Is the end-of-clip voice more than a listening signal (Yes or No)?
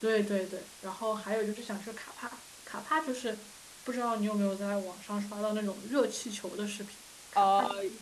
Yes